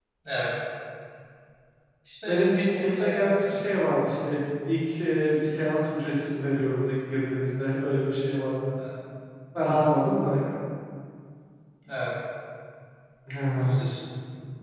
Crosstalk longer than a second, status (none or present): present